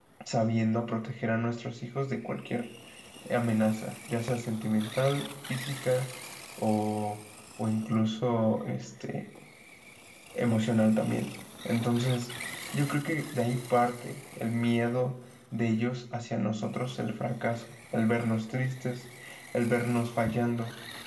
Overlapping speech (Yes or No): No